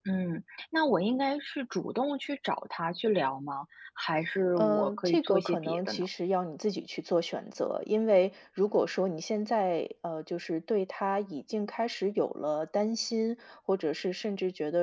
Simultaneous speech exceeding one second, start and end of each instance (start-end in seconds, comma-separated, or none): 4.5-6.1